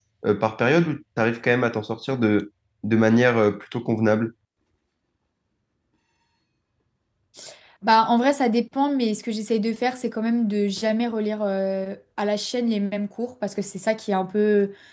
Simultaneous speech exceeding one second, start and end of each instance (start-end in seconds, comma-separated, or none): none